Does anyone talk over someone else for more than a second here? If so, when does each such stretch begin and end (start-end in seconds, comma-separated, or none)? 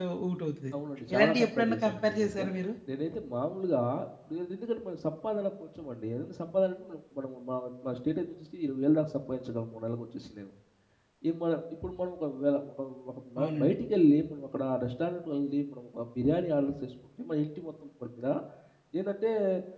1.1-2.4